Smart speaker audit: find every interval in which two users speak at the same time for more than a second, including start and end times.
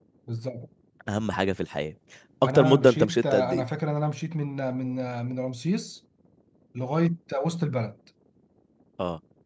2.4-3.6

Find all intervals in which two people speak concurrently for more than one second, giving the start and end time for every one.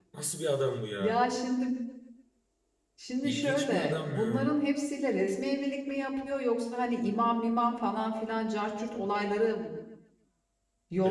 3.2-4.5

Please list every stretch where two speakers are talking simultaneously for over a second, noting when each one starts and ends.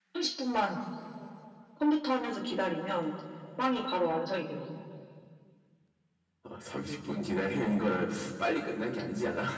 none

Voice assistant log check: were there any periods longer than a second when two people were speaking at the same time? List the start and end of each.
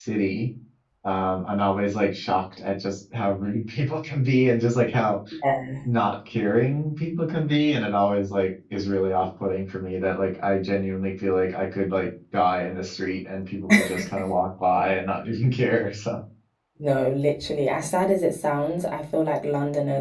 none

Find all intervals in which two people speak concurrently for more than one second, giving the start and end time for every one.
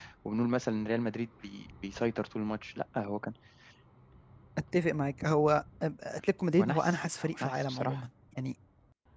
6.6-8.0

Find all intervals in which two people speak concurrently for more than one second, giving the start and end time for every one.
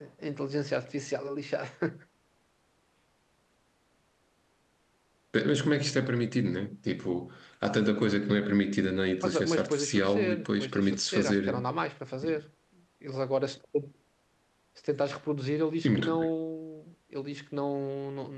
9.2-11.6

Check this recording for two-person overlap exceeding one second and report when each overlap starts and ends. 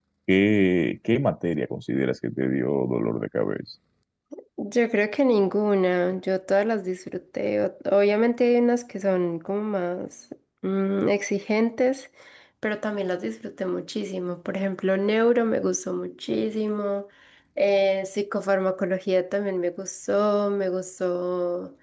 none

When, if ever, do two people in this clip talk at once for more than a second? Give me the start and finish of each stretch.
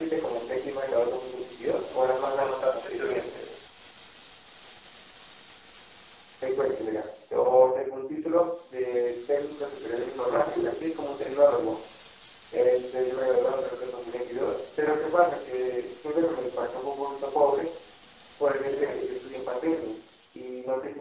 1.9-3.2

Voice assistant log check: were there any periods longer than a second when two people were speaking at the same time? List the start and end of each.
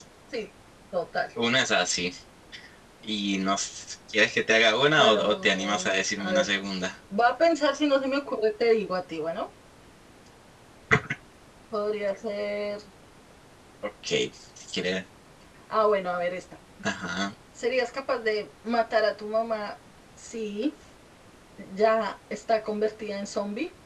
5.0-6.5

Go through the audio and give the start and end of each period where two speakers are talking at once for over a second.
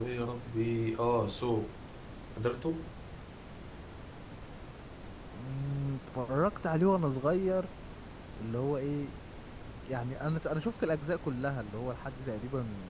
none

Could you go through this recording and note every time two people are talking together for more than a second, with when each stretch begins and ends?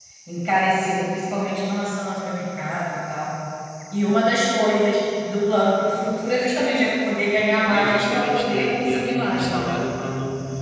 7.7-9.8

